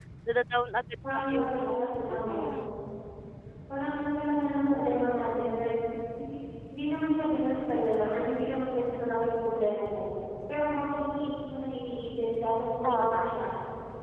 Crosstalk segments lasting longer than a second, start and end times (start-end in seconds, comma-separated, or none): 1.1-2.5